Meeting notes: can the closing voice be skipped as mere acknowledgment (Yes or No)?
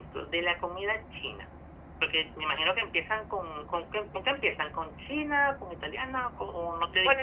No